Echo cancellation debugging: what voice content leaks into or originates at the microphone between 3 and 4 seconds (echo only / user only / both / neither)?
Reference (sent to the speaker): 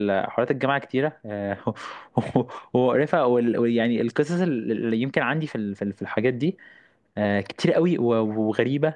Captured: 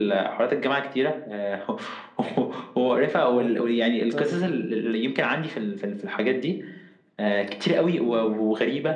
both